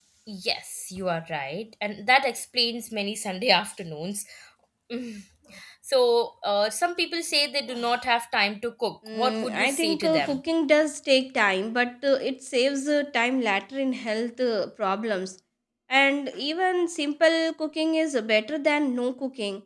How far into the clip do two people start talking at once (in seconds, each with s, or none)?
9.1 s